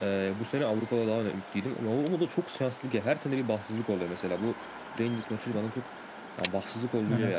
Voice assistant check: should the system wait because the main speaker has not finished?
Yes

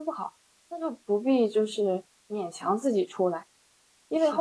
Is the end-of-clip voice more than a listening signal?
No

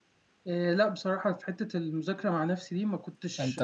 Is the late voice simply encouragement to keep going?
Yes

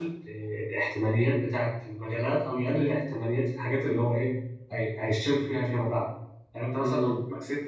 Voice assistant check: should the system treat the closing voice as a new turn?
No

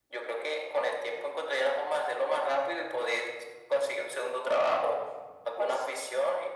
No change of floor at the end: Yes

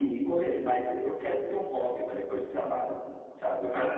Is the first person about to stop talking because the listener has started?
Yes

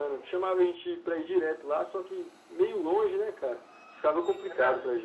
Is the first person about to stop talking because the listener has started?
Yes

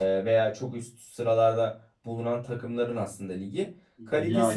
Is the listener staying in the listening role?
Yes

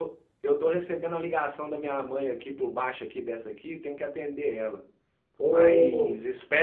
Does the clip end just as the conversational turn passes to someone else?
No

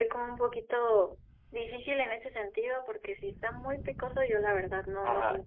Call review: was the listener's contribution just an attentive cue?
No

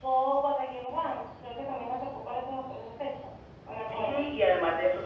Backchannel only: No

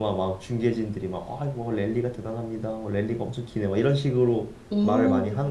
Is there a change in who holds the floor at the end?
Yes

